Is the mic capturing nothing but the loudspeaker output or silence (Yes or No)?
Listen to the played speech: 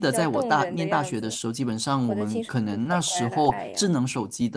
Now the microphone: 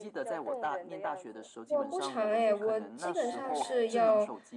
No